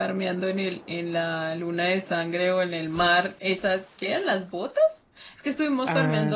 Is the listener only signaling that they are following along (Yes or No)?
Yes